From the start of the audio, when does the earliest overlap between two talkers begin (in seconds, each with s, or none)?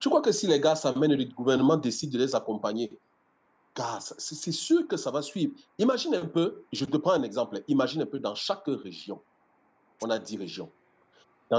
none